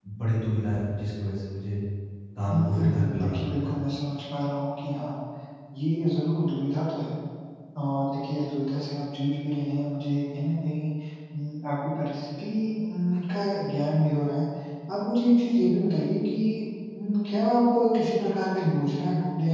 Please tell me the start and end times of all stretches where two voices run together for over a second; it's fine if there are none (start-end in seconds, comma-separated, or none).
2.5-3.7